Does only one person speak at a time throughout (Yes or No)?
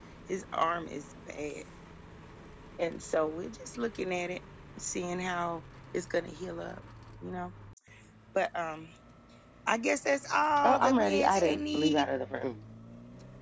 No